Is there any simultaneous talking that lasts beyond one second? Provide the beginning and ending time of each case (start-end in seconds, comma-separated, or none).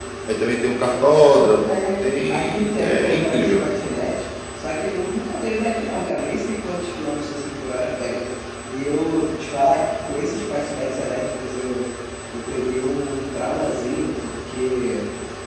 1.4-3.6